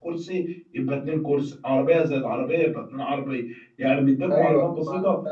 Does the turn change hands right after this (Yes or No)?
No